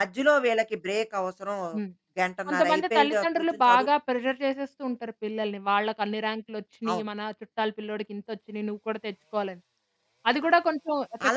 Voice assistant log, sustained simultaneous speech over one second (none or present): present